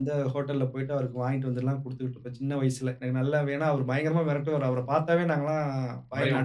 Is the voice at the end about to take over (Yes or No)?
No